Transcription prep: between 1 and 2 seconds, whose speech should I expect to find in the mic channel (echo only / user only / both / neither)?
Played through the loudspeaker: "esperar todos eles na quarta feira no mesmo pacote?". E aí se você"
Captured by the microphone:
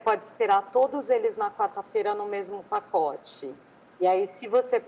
echo only